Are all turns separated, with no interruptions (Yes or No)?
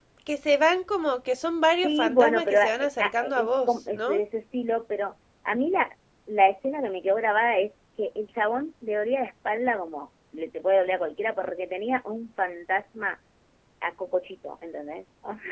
No